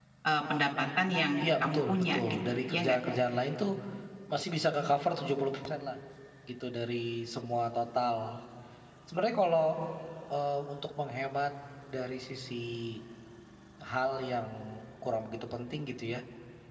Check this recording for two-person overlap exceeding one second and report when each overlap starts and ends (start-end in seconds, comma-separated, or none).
1.4-3.0